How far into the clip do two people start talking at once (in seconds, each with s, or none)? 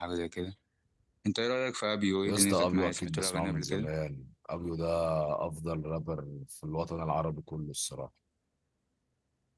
2.2 s